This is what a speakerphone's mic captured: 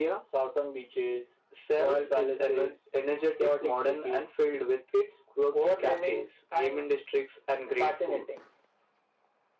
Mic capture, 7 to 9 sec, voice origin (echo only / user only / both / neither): echo only